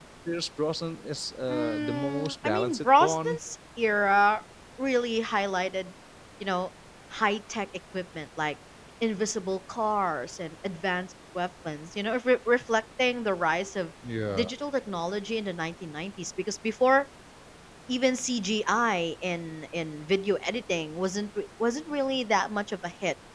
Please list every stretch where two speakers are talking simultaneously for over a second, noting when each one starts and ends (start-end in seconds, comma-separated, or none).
1.5-3.4